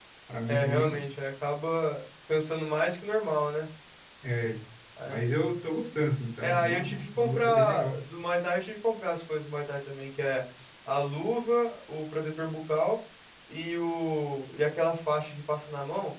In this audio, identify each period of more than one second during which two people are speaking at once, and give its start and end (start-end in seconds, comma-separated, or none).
6.4-8.0